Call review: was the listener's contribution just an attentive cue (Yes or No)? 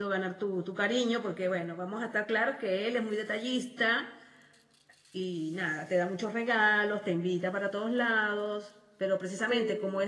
Yes